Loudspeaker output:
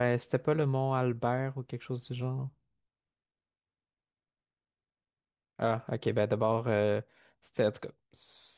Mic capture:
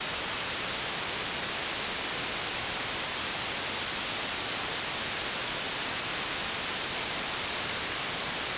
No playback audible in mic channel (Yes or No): Yes